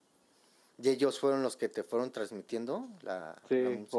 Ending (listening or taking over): taking over